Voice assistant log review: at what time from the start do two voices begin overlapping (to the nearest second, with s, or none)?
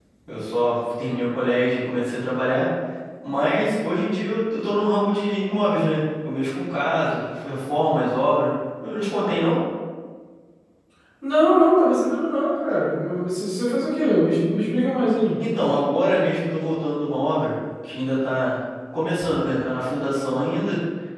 none